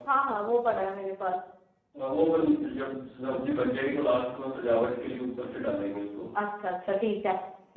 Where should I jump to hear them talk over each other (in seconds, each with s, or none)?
none